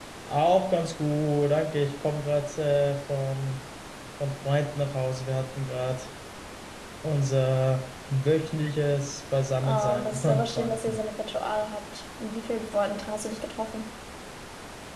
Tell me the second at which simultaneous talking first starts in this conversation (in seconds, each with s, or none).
9.6 s